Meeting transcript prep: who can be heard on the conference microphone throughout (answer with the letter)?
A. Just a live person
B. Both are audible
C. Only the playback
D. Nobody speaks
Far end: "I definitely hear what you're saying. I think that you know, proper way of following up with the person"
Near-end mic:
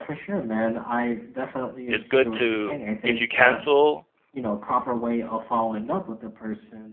B